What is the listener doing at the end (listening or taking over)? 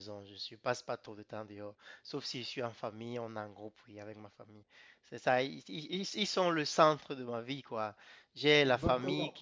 listening